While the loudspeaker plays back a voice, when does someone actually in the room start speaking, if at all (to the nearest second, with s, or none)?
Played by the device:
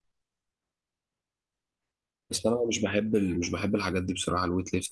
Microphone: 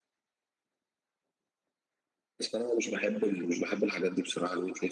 none